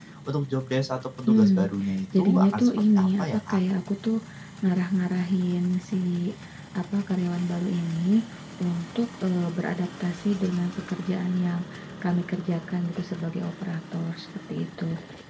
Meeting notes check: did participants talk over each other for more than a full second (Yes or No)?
Yes